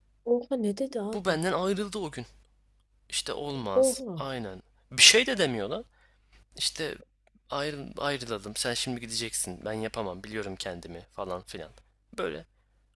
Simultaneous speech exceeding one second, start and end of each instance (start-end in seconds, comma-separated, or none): none